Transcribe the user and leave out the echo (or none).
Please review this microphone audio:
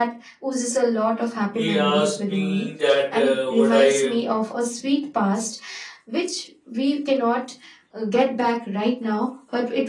he asked me that uh, would I